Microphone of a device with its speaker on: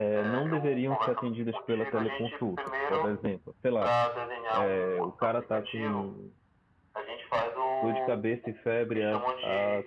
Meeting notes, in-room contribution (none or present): present